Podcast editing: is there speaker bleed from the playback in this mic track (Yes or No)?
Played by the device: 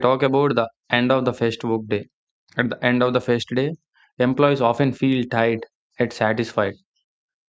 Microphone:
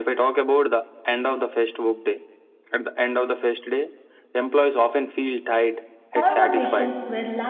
Yes